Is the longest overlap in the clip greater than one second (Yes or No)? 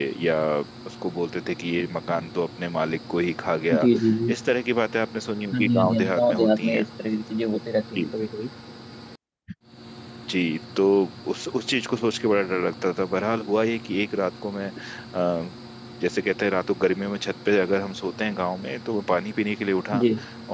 Yes